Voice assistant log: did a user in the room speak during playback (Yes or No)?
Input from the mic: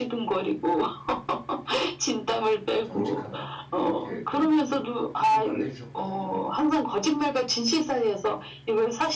Yes